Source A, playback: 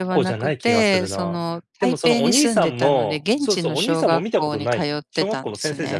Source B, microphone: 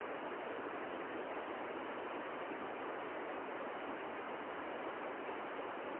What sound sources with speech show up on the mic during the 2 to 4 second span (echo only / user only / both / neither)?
neither